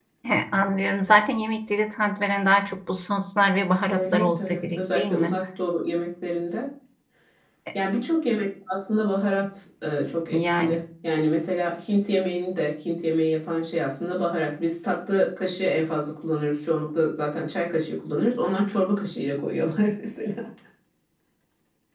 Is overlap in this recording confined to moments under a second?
No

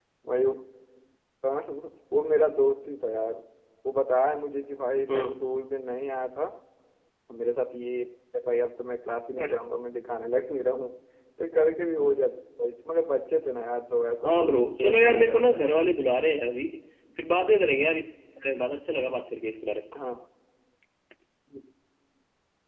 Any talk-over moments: Yes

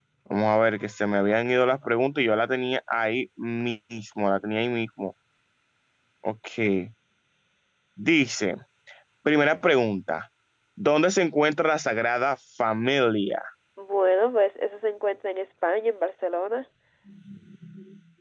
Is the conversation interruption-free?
Yes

